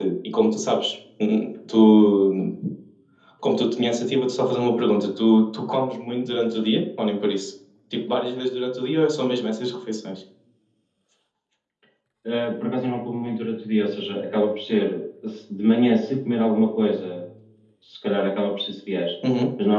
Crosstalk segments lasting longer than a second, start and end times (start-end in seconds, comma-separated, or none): none